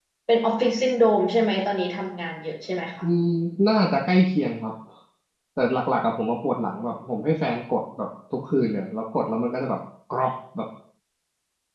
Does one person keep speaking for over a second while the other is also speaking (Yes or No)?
No